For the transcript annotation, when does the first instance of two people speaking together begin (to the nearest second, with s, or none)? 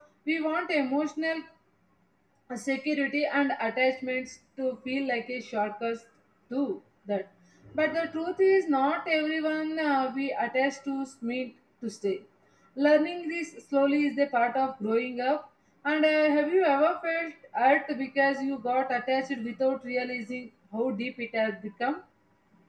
none